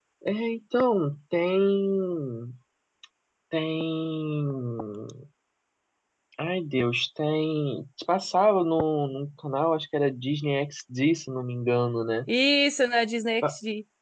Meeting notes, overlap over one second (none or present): none